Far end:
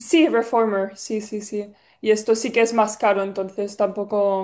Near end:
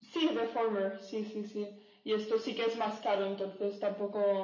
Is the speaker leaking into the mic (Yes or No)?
Yes